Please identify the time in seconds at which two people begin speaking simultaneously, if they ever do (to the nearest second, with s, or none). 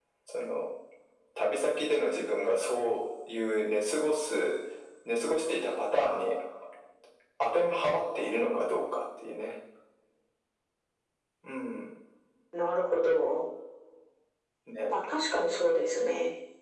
none